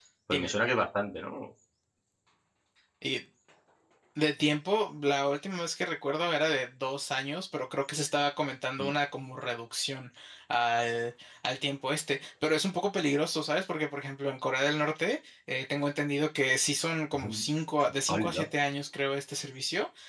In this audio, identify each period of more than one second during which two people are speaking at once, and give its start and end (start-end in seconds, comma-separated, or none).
none